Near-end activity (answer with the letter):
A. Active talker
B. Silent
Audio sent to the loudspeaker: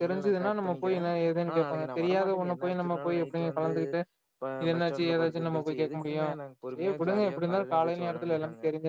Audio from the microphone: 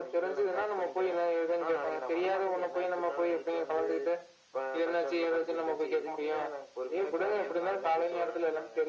B